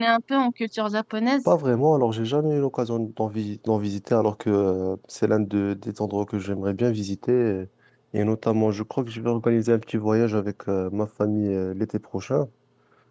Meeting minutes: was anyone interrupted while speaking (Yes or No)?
No